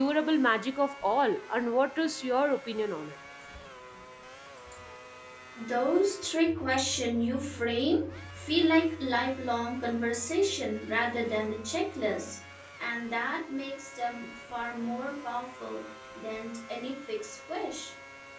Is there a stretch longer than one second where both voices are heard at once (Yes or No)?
No